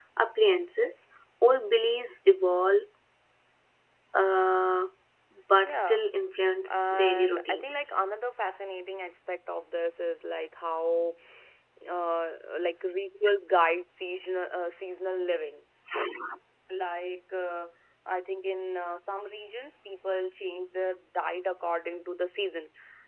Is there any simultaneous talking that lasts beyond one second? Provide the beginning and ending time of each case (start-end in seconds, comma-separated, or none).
6.7-8.0